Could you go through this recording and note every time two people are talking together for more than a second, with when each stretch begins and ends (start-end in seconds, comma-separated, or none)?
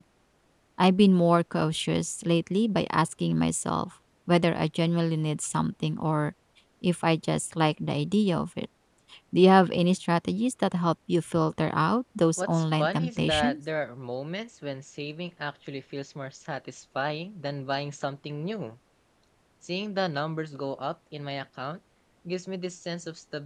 12.4-13.6